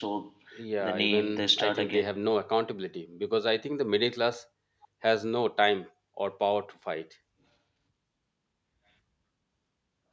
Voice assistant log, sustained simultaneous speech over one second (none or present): present